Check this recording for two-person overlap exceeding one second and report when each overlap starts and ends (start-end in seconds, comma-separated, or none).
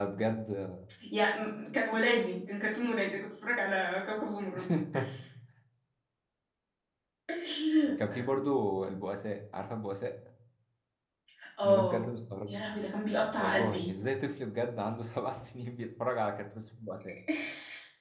none